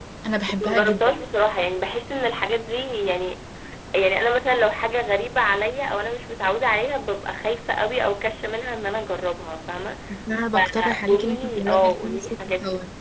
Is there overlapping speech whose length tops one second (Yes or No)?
Yes